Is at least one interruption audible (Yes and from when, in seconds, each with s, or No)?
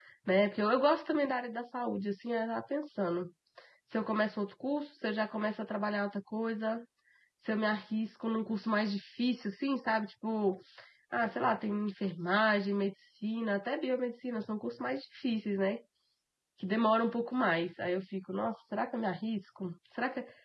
No